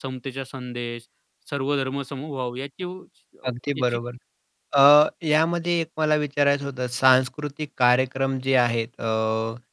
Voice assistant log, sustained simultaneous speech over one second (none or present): none